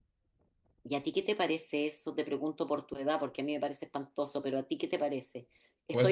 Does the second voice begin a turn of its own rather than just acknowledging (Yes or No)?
No